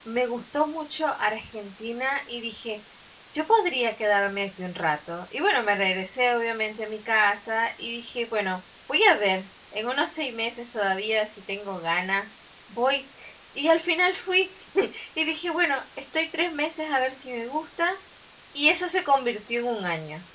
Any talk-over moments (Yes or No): No